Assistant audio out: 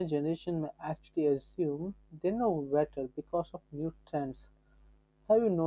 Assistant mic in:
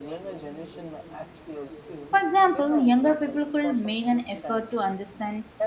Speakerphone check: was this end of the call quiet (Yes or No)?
No